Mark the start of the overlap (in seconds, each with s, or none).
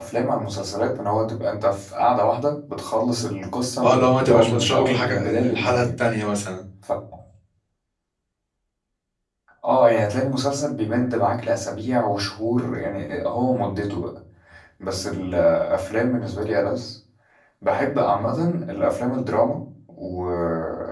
3.8 s